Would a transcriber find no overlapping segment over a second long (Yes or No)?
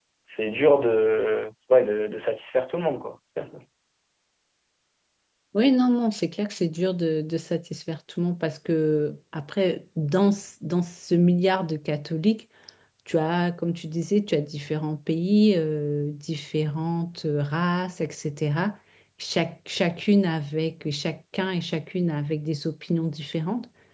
Yes